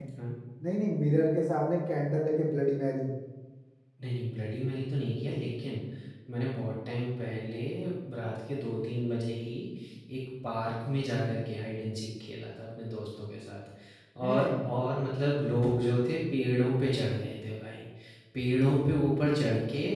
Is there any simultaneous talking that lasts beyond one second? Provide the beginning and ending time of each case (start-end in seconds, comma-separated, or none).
none